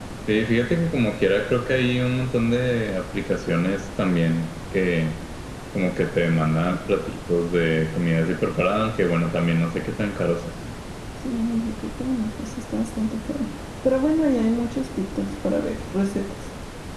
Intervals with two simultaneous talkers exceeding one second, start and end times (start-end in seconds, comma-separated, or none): none